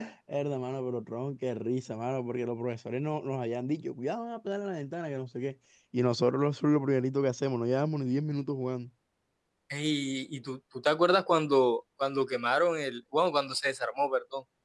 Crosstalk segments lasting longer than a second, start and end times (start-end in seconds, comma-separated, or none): none